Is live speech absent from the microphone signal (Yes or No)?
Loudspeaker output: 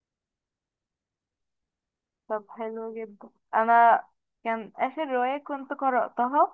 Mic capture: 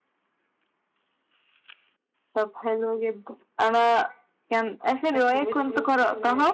No